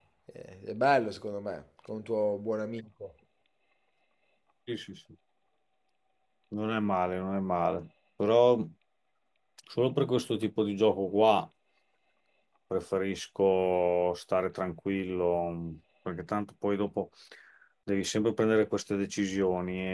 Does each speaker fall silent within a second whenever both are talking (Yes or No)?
Yes